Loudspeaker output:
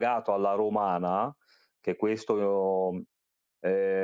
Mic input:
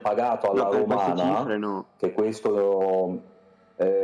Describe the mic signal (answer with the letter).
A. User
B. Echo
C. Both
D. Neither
C